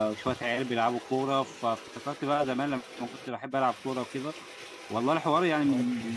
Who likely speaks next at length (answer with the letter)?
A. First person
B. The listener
A